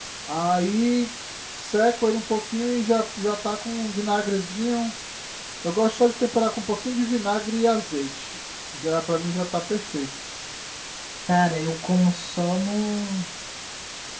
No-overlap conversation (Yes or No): Yes